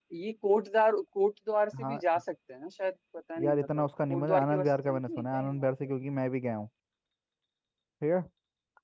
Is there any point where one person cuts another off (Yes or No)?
Yes